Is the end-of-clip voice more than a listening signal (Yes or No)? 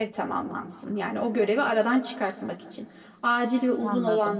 No